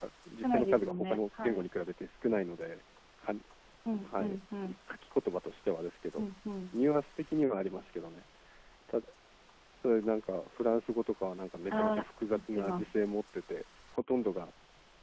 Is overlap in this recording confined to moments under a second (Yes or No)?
No